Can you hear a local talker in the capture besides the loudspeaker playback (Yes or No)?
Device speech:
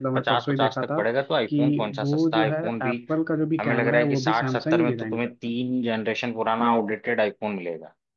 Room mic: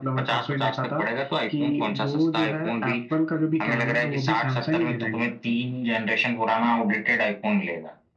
No